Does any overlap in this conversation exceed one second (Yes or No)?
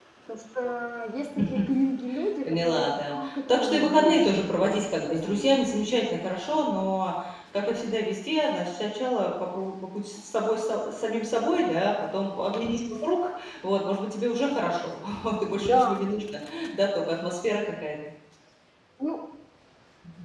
Yes